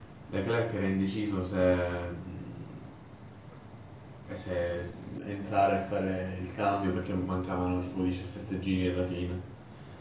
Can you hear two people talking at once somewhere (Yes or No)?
No